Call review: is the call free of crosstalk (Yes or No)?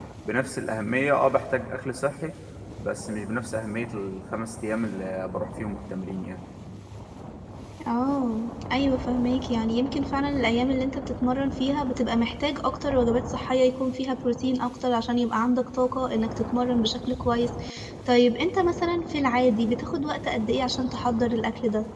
Yes